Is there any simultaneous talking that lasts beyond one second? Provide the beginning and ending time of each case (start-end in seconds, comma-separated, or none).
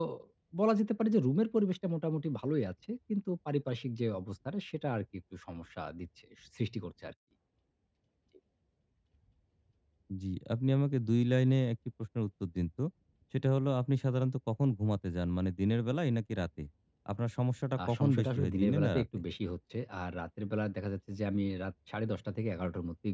17.9-19.2